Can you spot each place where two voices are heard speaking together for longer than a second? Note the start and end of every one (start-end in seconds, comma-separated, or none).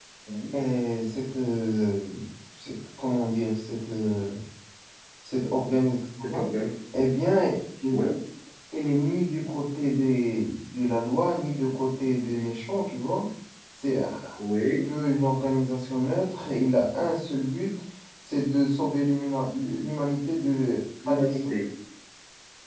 none